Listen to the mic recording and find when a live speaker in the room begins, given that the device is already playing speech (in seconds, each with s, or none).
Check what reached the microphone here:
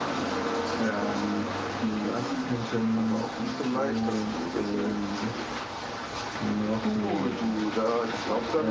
none